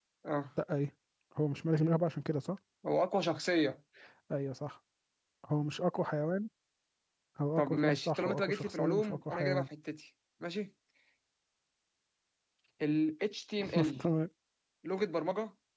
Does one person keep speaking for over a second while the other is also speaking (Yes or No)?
Yes